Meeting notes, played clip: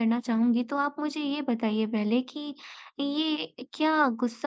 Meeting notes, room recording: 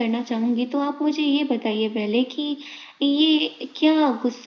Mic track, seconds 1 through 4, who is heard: echo only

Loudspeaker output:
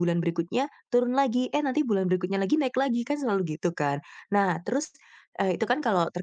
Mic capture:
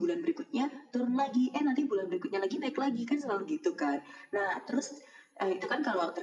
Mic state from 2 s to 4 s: echo only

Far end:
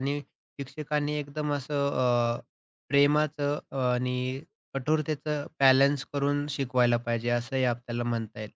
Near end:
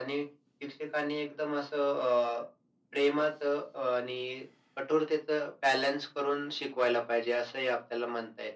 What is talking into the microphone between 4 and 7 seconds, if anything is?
echo only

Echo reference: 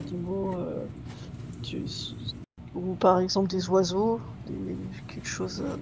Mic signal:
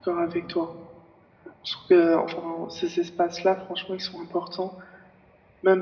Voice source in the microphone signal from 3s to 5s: user only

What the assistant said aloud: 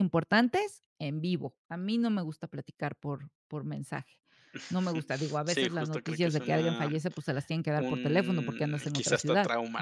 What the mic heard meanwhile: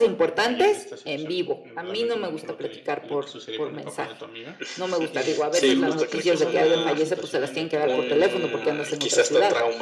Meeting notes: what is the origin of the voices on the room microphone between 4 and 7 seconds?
both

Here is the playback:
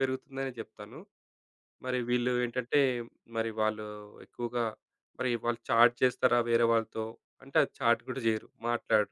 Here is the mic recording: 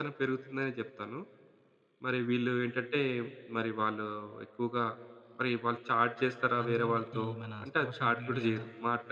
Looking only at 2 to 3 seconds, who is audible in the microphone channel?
echo only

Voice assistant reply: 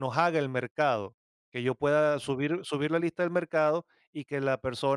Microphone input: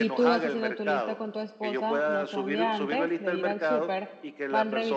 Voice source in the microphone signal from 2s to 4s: both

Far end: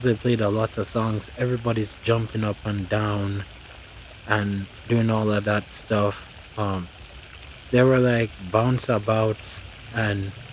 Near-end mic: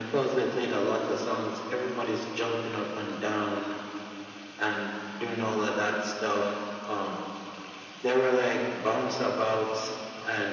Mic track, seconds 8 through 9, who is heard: echo only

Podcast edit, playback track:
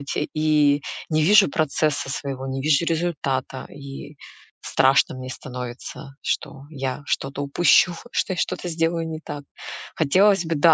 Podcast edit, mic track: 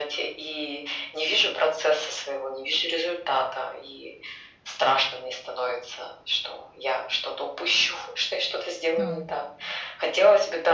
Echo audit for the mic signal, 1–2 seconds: echo only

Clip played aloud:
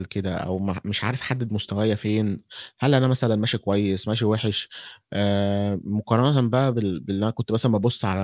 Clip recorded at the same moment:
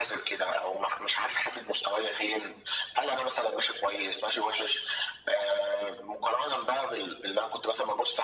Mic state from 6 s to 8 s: echo only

